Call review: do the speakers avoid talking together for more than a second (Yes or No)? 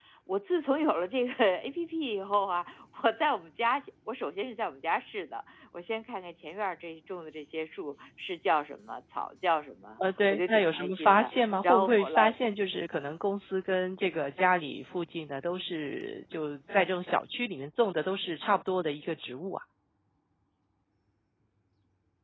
No